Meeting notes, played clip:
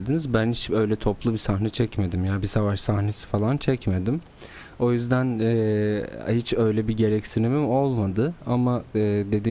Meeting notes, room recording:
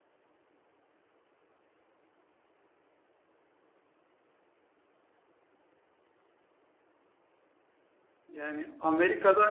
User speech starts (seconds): 8.3 s

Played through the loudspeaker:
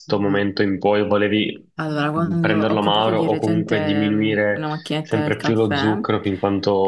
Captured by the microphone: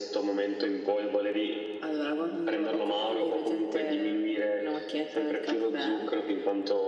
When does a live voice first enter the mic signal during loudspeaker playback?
none

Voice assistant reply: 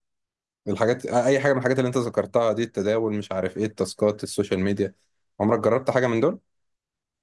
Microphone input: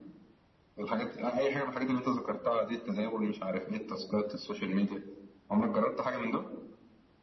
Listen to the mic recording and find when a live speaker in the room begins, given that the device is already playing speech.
none

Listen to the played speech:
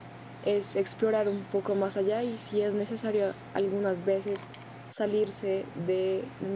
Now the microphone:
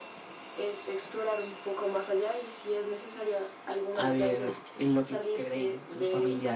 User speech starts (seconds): 3.9 s

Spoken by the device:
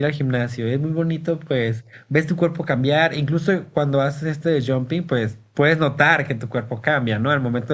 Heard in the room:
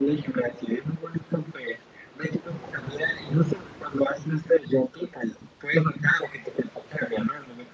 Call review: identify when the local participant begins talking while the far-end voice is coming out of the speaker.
none

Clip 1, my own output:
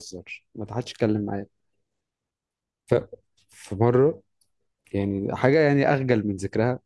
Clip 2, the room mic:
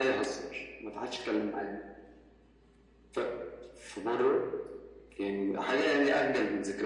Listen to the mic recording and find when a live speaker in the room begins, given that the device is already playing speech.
none

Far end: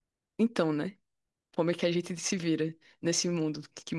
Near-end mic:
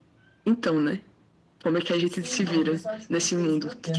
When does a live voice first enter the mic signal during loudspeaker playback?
2.0 s

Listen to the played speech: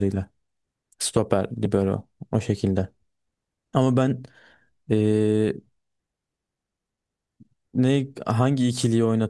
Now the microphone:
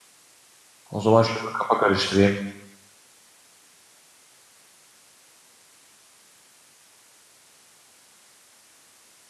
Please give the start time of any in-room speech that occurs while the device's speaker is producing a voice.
0.9 s

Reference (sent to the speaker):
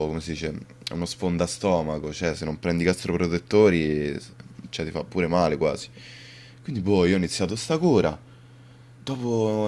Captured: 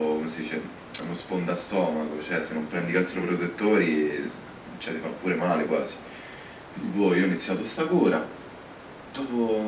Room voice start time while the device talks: none

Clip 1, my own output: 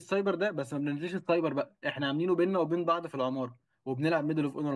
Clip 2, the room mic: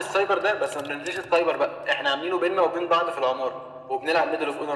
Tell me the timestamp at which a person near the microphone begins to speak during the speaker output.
none

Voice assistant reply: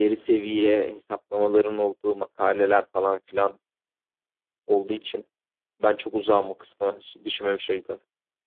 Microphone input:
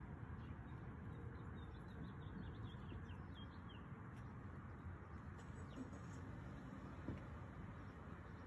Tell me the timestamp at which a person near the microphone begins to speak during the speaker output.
none

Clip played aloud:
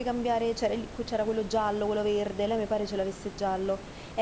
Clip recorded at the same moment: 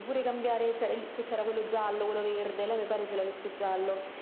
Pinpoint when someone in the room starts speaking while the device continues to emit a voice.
none

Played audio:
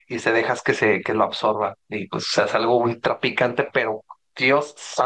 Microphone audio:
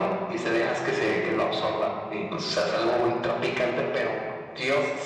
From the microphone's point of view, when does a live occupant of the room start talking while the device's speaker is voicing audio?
none

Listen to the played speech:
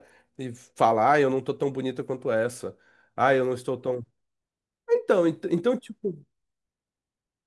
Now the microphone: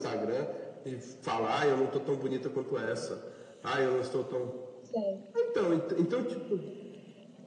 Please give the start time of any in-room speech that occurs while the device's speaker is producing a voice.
4.8 s

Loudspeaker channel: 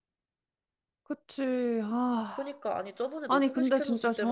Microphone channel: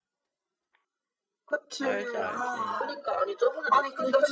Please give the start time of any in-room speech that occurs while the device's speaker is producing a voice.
1.8 s

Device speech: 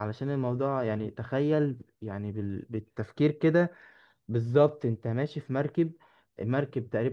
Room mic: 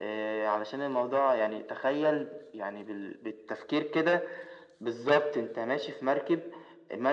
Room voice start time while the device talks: none

